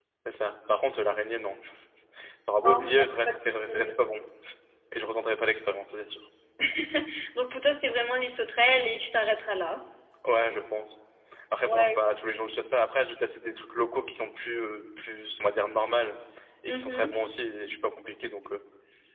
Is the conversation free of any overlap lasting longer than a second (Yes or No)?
No